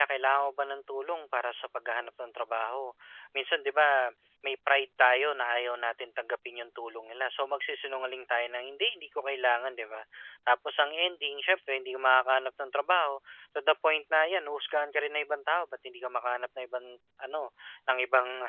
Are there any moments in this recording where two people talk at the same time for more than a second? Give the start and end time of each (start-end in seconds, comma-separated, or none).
none